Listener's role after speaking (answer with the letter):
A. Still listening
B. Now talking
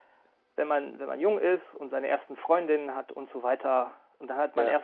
A